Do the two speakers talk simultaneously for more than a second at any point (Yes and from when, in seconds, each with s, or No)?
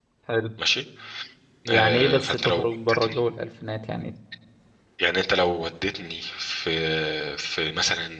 Yes, from 1.7 s